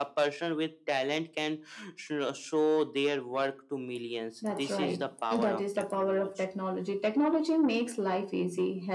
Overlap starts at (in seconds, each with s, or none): 4.4 s